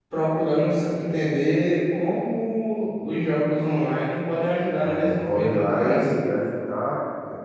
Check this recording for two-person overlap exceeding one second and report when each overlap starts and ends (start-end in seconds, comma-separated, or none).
4.8-6.1